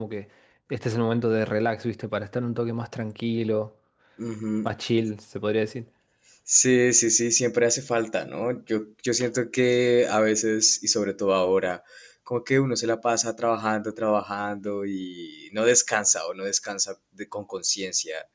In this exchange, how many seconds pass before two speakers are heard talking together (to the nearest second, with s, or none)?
none